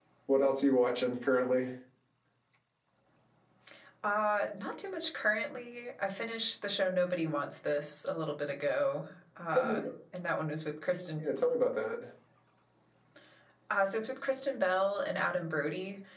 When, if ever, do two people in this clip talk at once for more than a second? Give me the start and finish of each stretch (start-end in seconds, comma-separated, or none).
none